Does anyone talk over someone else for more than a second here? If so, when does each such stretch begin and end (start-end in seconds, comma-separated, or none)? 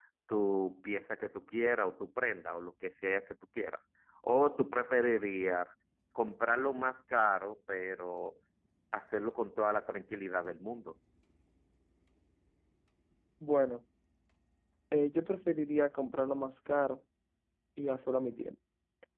none